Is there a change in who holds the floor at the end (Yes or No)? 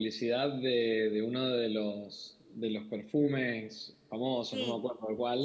Yes